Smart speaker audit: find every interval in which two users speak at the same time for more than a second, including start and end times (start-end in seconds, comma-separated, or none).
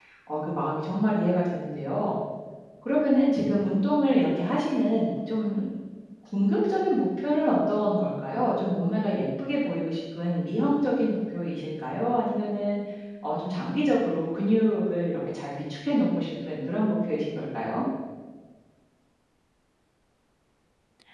none